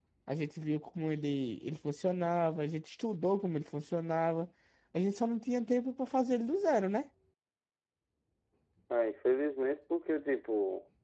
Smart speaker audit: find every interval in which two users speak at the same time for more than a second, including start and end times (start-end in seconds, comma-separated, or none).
none